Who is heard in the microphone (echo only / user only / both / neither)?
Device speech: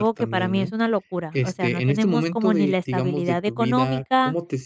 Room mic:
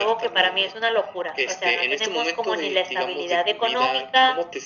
echo only